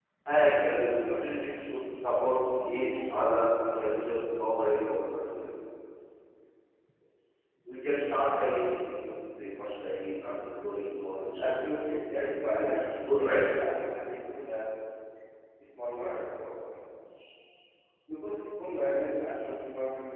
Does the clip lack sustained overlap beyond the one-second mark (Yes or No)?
No